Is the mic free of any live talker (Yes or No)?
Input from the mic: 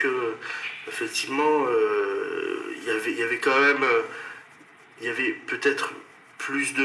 Yes